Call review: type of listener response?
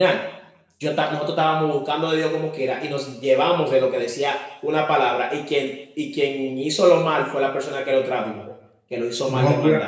taking over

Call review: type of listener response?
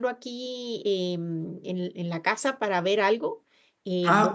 listening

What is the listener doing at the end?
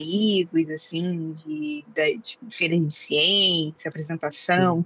listening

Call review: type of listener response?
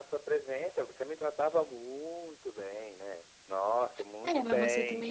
taking over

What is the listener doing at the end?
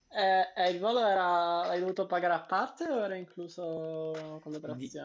taking over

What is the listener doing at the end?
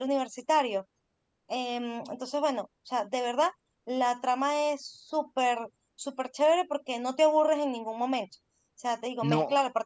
listening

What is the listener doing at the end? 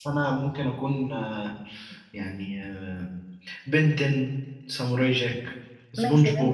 taking over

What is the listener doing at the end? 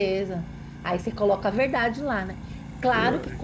listening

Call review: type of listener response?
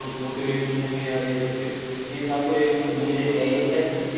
listening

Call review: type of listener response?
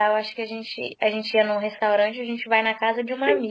listening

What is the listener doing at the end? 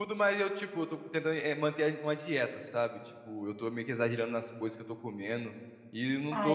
listening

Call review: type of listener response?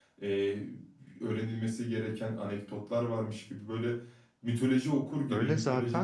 taking over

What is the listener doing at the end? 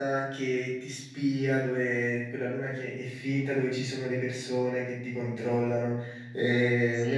listening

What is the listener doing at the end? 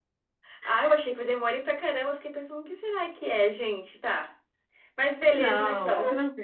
taking over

